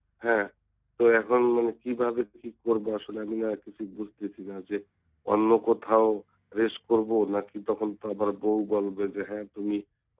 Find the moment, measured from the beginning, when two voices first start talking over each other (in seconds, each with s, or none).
none